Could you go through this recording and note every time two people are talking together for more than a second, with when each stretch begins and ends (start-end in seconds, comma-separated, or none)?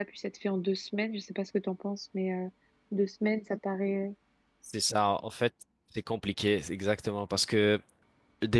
none